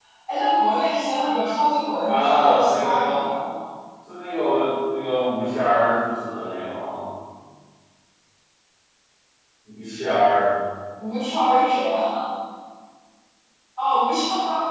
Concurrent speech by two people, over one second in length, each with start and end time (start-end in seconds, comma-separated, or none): 2.1-3.3